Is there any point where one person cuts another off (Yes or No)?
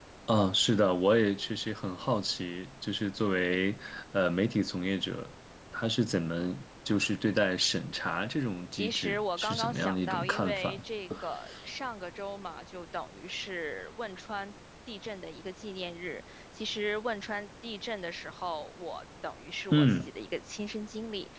Yes